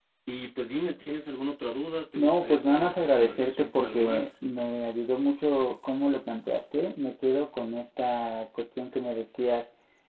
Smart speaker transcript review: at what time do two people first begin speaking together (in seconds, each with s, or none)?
2.1 s